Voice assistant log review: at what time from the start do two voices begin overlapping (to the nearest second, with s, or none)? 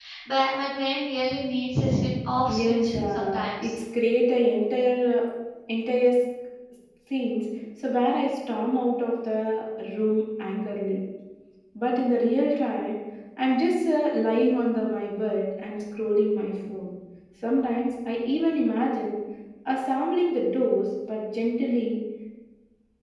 2 s